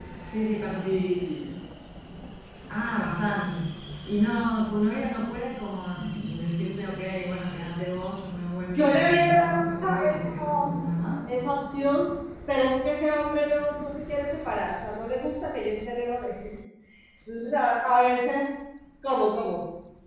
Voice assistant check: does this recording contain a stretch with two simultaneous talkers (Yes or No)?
Yes